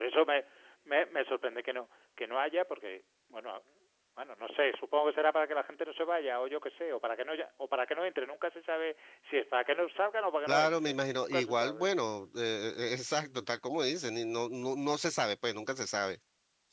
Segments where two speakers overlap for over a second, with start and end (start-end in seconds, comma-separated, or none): 10.5-11.9